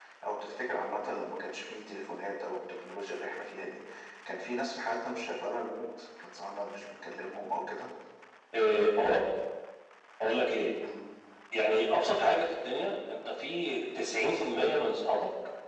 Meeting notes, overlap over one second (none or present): none